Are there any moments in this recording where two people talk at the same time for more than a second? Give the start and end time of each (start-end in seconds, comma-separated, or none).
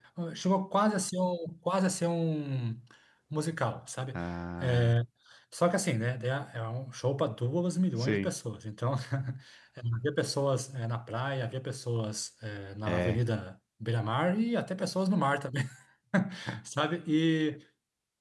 none